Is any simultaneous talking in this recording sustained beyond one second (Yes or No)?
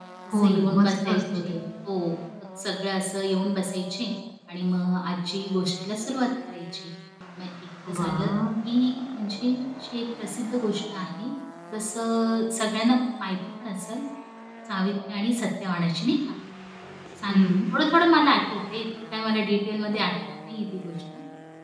Yes